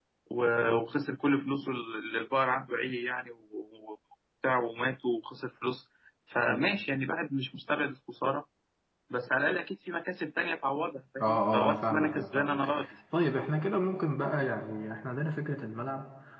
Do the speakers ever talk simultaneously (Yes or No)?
Yes